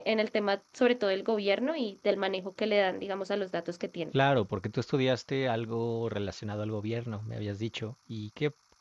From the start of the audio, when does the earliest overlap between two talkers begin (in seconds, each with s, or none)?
none